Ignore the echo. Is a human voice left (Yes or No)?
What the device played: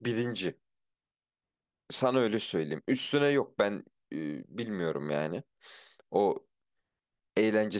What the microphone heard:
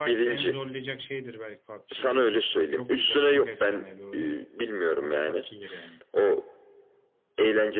Yes